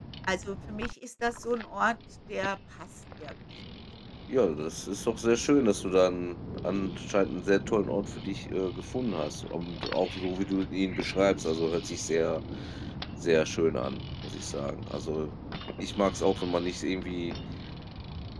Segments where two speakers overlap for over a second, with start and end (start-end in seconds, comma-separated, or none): none